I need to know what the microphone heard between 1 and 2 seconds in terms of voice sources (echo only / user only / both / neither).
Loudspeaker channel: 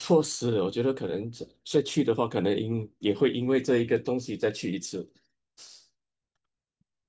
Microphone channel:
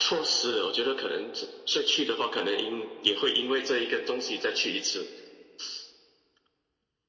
echo only